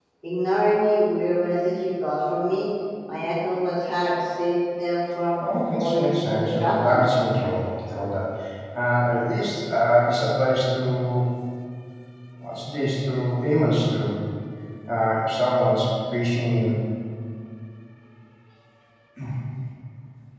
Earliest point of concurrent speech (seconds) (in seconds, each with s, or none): 5.4 s